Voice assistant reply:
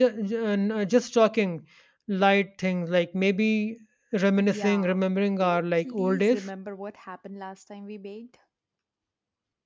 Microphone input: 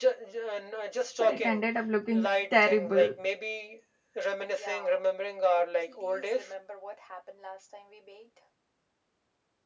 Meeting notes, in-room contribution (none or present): present